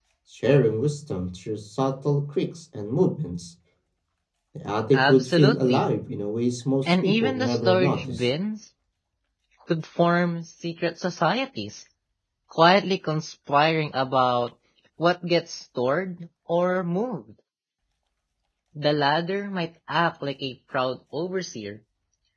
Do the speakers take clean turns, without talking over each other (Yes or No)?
No